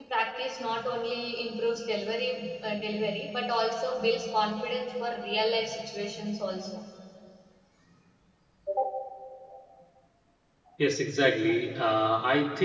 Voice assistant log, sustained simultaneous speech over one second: none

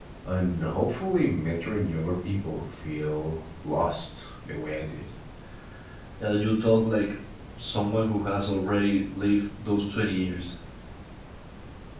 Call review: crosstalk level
none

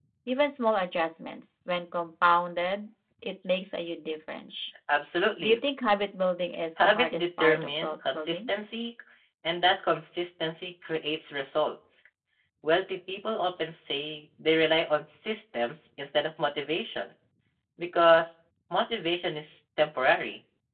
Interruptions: present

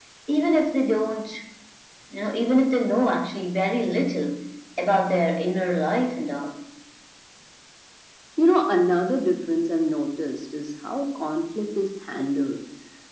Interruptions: none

